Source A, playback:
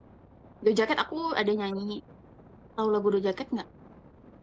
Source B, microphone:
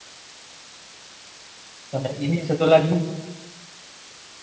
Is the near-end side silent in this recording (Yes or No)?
No